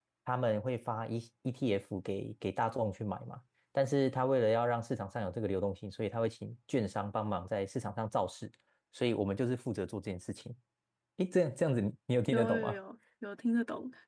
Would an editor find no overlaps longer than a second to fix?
Yes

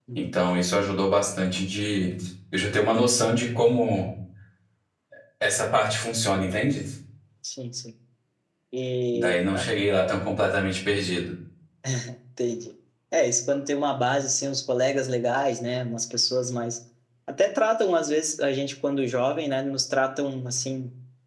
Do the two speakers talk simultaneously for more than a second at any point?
No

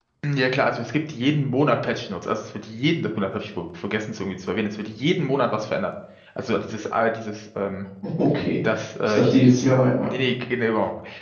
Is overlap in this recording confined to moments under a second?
Yes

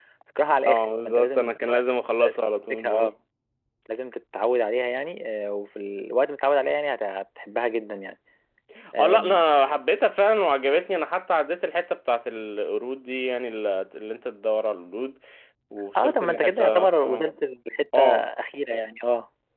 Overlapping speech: Yes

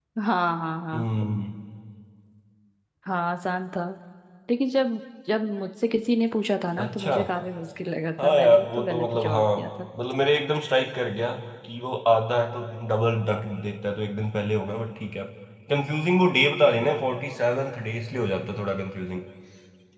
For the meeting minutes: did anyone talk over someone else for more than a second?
Yes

